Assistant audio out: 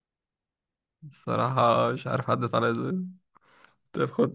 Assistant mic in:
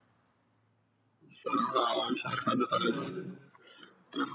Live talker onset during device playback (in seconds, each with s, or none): 2.8 s